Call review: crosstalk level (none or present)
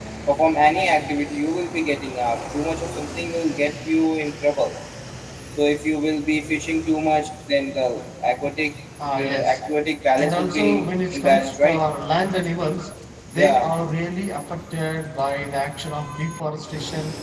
present